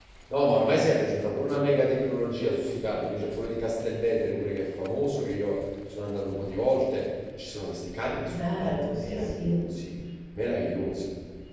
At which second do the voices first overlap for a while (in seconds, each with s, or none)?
8.2 s